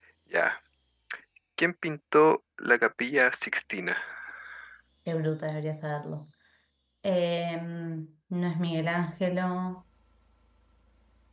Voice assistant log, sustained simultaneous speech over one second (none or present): none